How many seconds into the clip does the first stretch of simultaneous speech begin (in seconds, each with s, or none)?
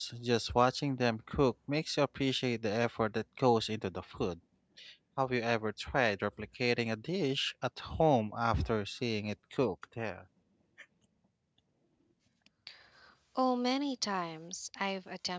none